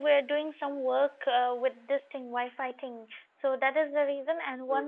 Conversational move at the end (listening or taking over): listening